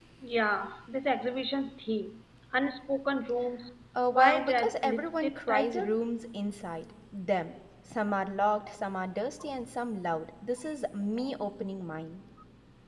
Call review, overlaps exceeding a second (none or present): present